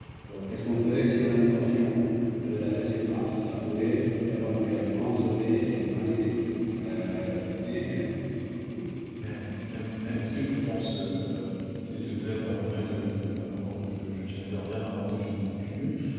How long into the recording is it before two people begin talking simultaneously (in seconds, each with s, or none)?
none